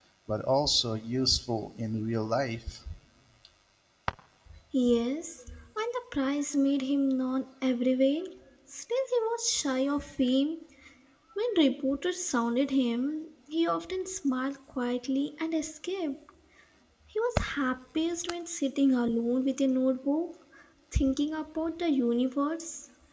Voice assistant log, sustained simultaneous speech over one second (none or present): none